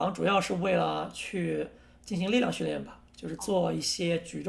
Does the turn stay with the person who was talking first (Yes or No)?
Yes